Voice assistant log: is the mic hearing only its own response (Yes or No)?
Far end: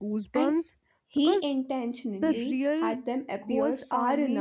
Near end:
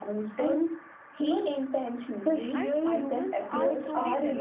No